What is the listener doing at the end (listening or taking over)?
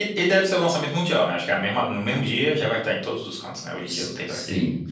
taking over